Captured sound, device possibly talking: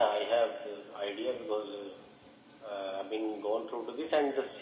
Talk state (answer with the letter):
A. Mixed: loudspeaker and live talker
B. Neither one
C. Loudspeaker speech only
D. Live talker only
C